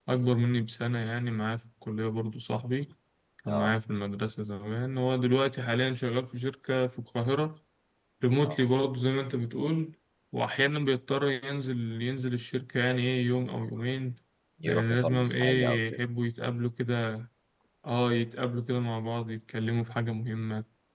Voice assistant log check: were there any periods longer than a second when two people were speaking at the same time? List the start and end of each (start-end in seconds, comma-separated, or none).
14.6-16.0